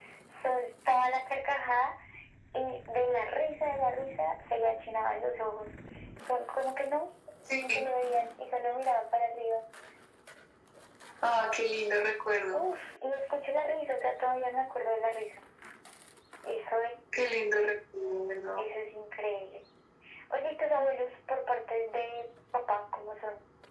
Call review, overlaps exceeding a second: none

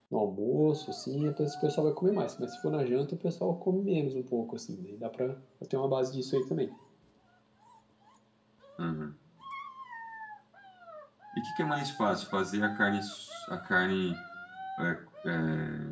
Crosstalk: none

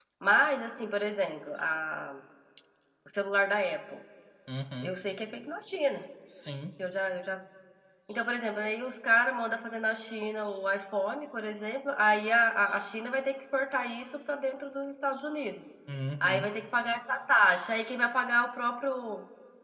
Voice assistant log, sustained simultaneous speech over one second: none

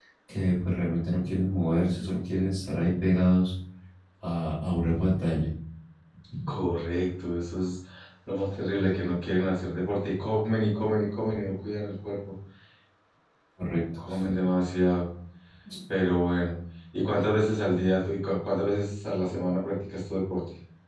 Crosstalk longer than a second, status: none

